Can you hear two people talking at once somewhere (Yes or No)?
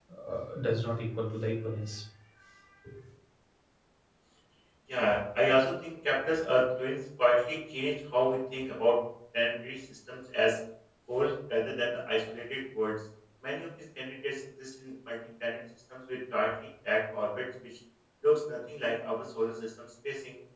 No